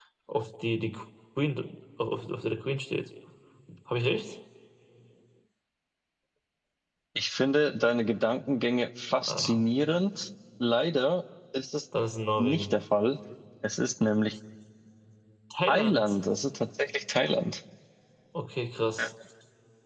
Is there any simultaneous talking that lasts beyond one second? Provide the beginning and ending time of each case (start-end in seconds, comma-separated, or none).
none